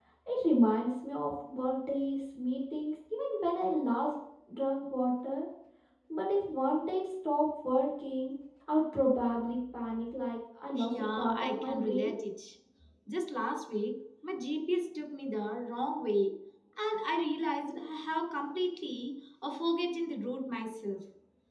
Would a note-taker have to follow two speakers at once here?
Yes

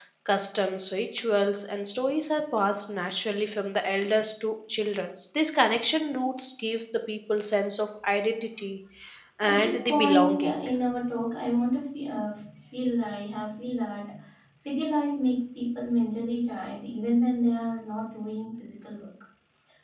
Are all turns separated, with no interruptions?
No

